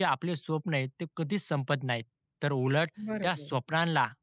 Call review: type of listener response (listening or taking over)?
listening